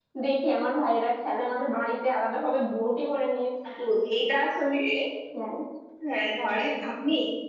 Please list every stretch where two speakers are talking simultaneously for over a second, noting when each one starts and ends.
none

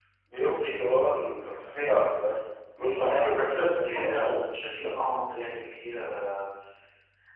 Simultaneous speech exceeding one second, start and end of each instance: 2.8-4.3

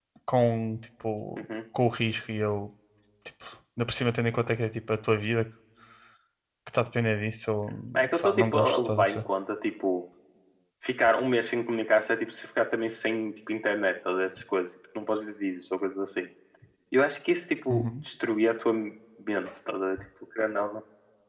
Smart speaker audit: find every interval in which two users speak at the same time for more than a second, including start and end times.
8.0-9.2

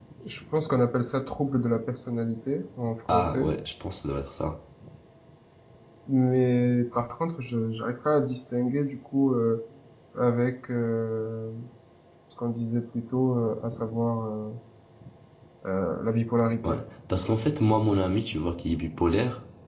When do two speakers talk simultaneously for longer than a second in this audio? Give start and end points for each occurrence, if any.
none

